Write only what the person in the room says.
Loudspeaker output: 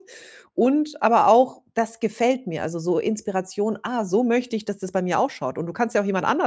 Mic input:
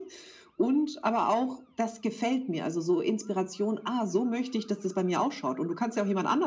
none

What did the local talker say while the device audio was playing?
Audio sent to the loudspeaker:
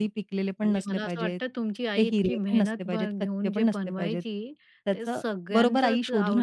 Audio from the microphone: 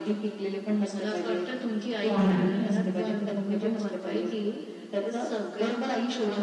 हो ना.

